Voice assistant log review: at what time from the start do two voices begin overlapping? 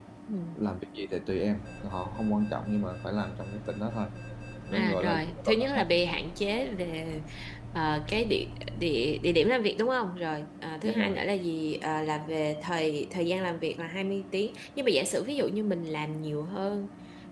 4.7 s

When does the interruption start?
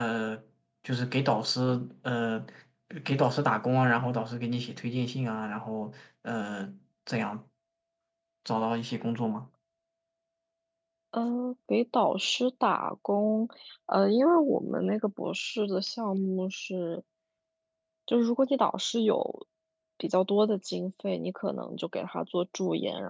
none

